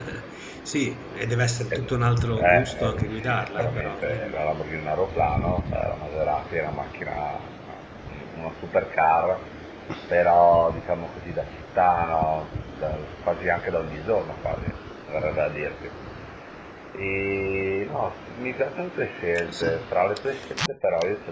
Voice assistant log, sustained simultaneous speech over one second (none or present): present